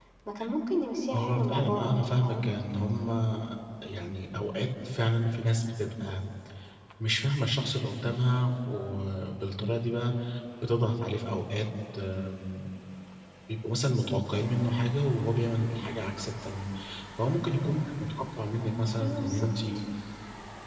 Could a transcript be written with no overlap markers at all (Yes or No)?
No